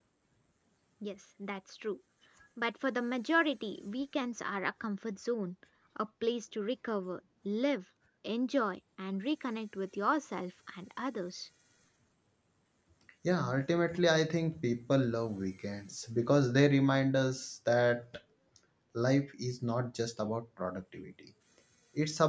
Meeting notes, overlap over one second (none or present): none